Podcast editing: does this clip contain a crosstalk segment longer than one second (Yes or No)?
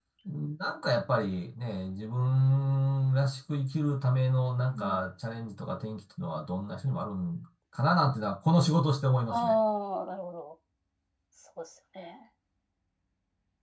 No